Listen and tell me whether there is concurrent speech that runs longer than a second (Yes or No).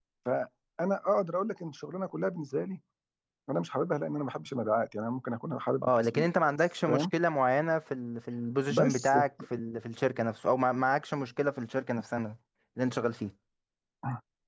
No